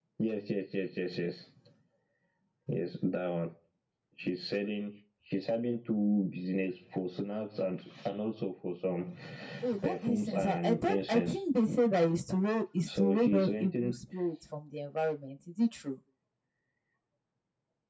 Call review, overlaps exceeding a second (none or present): present